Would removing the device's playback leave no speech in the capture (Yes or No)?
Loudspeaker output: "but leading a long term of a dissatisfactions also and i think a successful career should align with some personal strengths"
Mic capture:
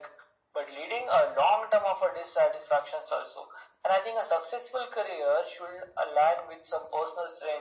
Yes